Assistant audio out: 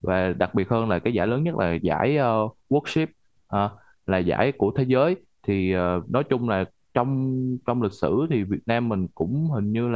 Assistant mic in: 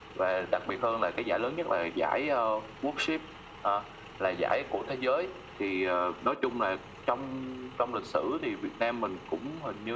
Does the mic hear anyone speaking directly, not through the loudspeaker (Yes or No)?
No